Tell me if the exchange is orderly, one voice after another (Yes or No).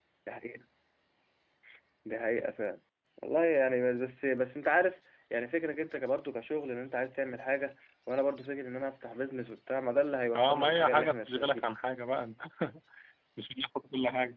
No